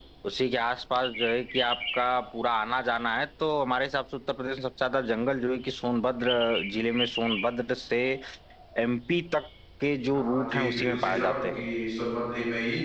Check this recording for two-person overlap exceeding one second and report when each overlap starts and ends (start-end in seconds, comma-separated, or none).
10.1-11.6